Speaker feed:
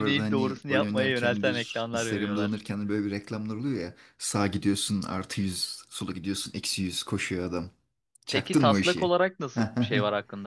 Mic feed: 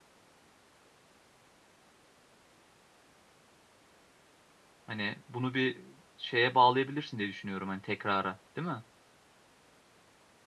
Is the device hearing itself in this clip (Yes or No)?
No